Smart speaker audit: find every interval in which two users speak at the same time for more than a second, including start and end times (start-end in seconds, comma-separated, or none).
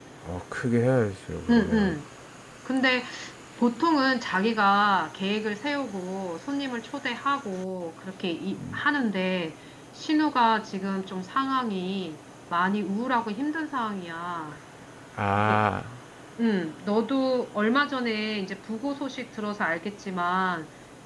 none